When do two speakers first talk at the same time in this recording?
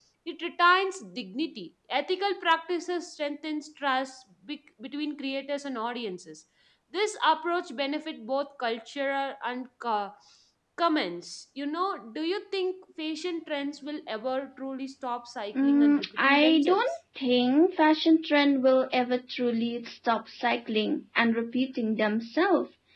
15.5 s

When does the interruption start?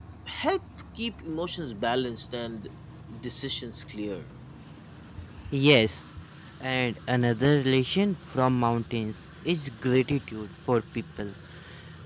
none

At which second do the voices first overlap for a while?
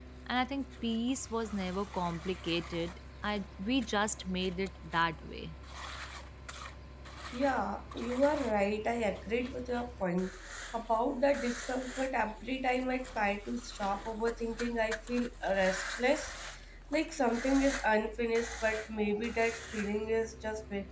none

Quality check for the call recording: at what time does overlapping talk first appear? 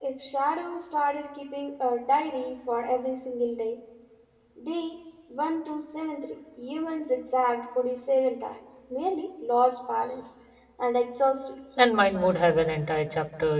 none

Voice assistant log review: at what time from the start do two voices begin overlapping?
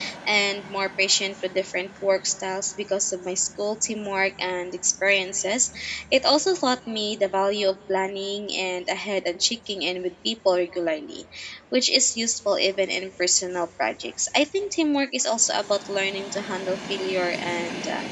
none

